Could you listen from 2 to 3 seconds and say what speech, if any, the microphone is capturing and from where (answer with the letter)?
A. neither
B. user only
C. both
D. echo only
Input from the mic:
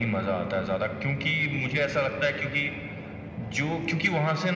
D